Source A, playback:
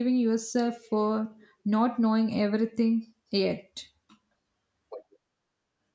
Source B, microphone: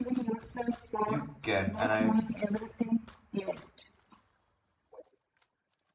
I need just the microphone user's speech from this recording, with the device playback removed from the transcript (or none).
You can, and I